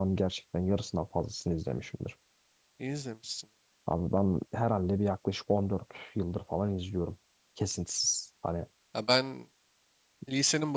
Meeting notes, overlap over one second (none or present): none